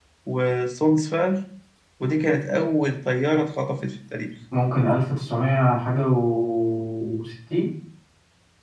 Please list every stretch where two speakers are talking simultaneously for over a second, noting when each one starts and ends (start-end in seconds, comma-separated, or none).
none